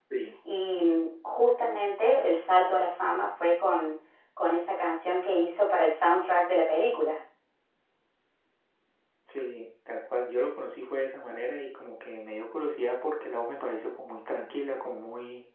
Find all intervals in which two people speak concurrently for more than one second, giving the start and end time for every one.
none

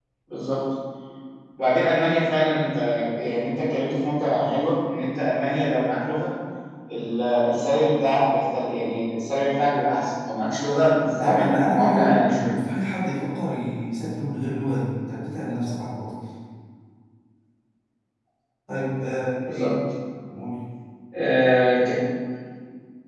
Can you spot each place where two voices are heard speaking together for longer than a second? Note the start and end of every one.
11.0-12.5

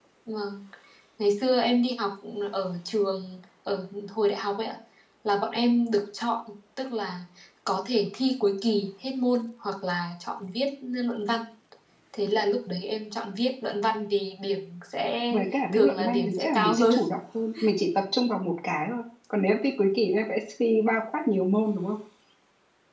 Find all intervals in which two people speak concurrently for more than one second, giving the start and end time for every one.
15.7-16.9

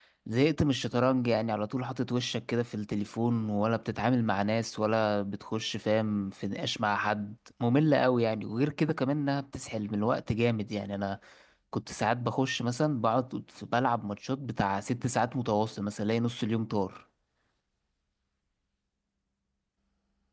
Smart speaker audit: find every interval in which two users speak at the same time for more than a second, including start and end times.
none

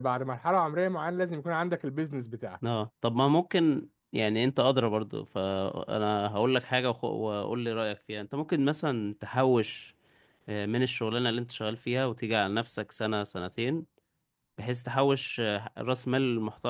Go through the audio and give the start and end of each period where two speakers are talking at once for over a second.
none

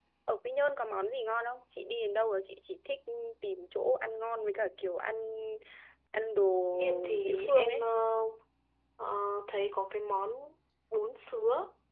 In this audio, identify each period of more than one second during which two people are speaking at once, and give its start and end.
6.7-7.9

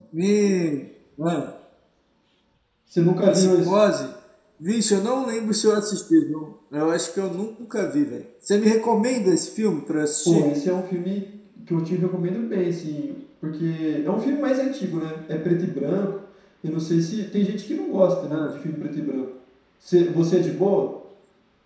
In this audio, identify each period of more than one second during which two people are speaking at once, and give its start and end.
none

